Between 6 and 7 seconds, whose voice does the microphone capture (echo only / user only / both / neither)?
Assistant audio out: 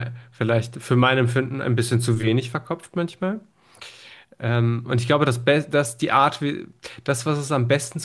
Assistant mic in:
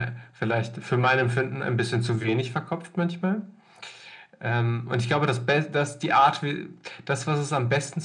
echo only